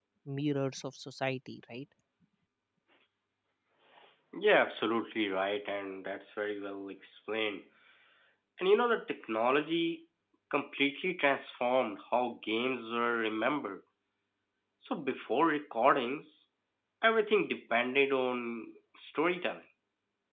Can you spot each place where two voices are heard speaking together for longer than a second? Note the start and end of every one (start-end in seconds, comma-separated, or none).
none